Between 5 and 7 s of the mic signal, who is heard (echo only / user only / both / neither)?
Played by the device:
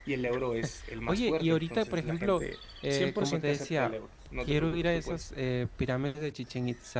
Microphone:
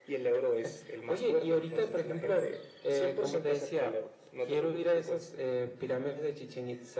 echo only